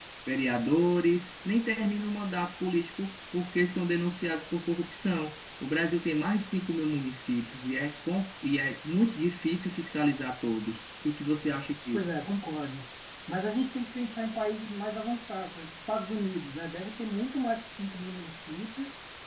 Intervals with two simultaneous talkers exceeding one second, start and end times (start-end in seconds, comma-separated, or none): none